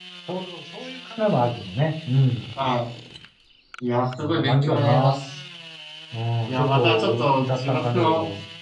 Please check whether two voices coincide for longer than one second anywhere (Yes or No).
Yes